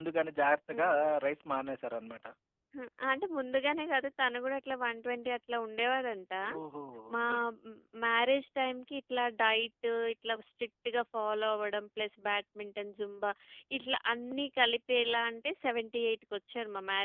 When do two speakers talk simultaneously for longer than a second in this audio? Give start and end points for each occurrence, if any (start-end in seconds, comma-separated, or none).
none